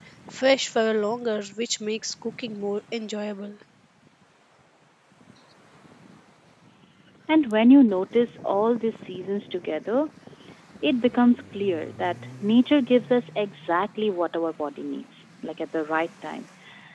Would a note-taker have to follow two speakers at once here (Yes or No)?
No